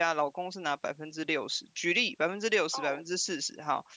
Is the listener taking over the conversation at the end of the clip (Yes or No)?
No